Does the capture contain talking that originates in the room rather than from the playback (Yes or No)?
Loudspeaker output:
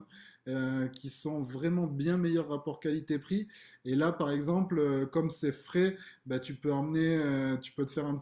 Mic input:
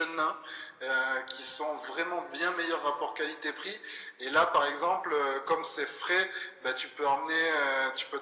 No